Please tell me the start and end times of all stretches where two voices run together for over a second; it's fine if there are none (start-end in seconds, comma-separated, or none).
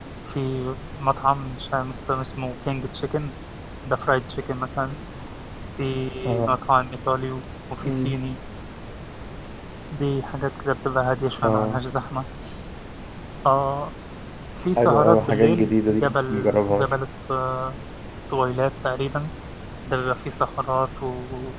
14.8-16.9